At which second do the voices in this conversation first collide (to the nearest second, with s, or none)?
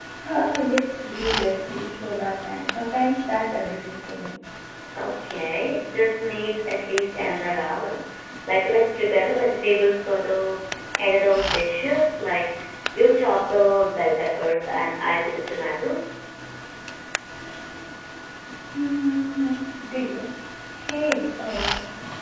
none